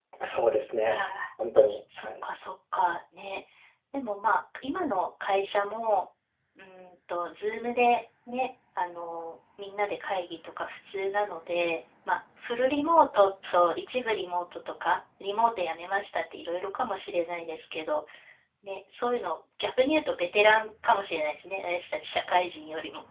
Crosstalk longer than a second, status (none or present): none